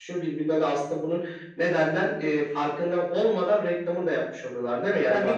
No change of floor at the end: No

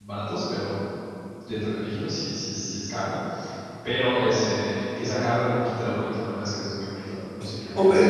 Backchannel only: No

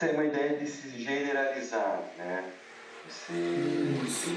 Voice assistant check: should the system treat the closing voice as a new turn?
Yes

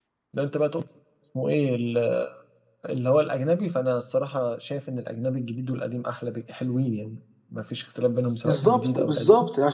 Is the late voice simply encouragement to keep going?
No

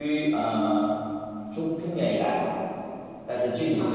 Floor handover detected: No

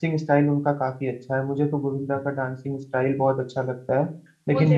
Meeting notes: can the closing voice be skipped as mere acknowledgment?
Yes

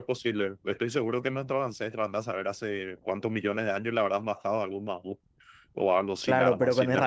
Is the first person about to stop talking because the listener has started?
Yes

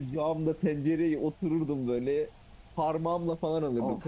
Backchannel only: Yes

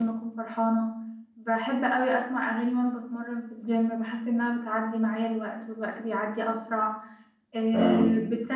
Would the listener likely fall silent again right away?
Yes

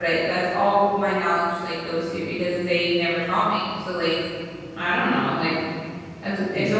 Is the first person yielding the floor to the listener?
No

